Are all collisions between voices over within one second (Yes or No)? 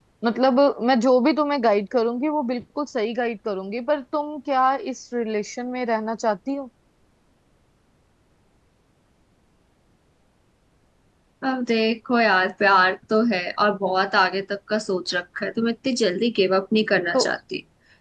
Yes